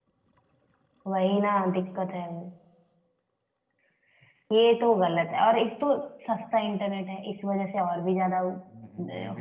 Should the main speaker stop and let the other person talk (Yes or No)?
Yes